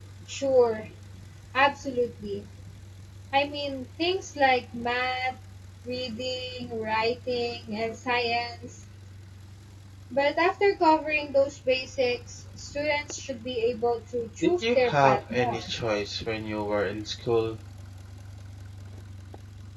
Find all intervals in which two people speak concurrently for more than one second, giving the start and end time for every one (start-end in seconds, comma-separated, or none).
14.4-15.7